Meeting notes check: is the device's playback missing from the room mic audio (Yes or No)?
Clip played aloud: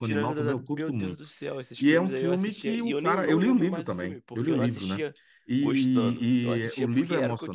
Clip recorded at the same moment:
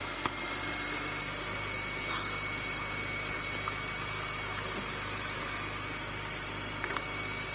Yes